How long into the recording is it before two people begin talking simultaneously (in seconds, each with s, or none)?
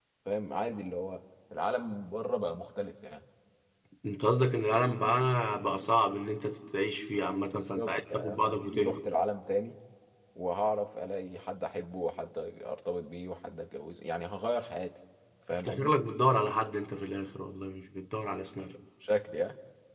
7.5 s